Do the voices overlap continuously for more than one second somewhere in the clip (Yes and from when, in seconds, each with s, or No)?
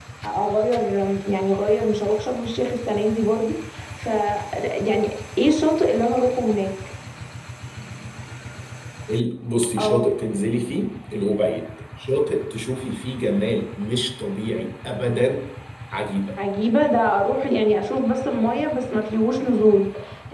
No